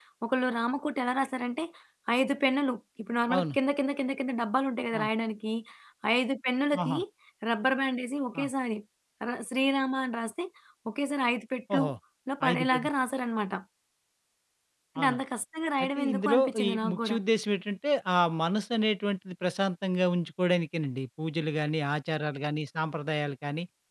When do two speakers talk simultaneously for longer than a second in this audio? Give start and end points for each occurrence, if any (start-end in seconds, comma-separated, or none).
15.8-17.2